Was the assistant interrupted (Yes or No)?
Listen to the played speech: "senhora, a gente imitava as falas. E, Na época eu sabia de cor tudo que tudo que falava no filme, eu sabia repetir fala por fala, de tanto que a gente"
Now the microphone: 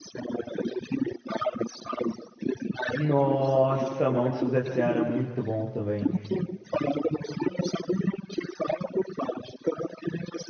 Yes